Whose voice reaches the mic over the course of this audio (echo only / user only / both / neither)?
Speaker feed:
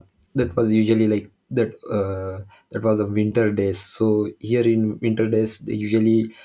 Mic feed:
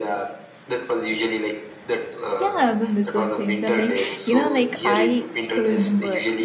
both